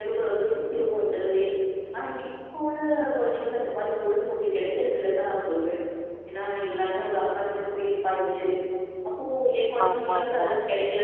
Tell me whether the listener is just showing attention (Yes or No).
Yes